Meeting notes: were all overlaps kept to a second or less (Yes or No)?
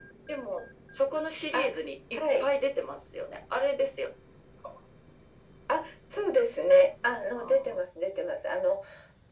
Yes